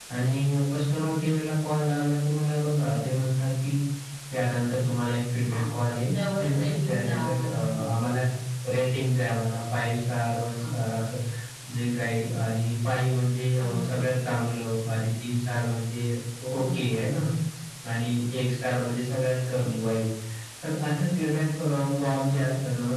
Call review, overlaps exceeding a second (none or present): present